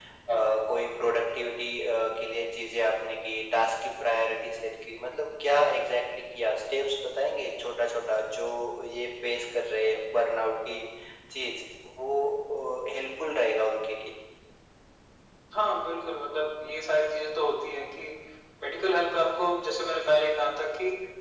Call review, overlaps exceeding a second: none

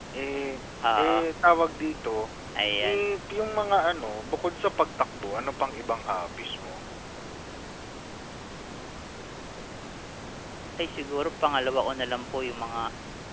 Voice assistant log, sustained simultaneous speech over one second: none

